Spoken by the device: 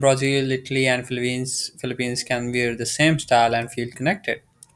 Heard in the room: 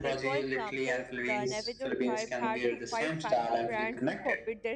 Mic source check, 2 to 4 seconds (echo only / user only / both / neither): both